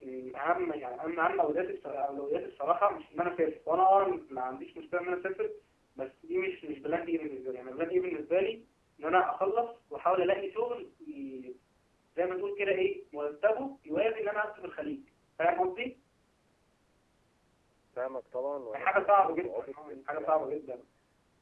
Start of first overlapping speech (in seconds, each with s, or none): 18.7 s